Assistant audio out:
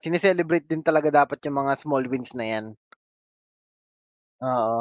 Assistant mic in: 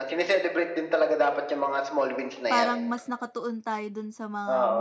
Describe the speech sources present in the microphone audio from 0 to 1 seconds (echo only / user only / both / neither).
echo only